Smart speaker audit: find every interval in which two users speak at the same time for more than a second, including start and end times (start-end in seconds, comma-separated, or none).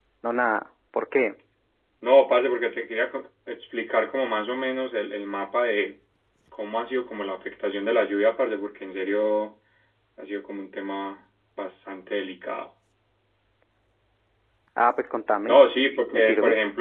none